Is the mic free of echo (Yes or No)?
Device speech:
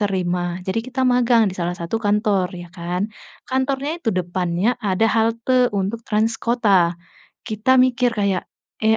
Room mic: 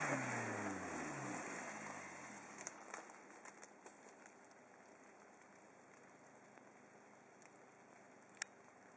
Yes